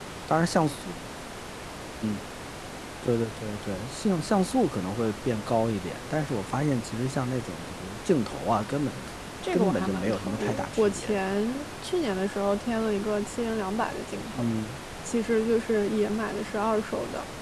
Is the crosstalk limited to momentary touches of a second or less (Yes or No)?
No